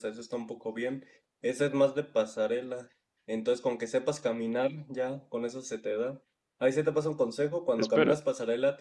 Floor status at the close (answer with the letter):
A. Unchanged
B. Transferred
A